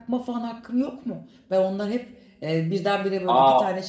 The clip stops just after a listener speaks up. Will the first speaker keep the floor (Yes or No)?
Yes